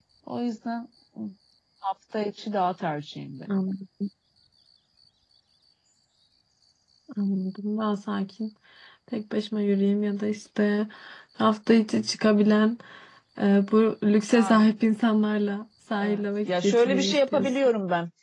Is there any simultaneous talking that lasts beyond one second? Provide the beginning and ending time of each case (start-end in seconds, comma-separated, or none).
16.0-17.6